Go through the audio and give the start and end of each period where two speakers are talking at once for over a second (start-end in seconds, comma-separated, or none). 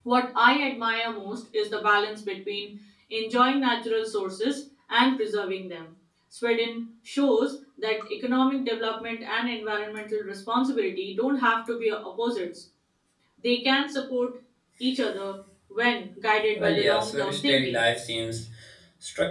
16.6-17.8